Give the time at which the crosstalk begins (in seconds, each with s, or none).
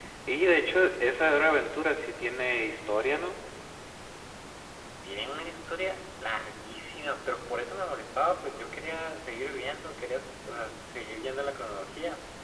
none